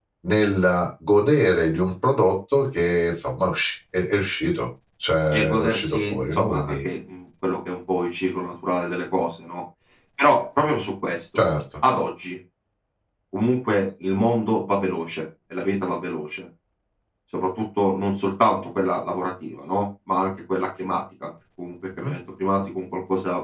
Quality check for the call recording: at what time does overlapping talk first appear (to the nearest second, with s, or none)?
5 s